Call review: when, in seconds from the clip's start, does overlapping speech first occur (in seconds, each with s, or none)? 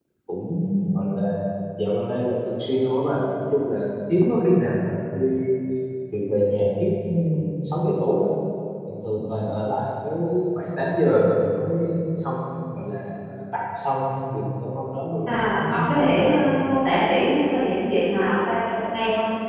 15.3 s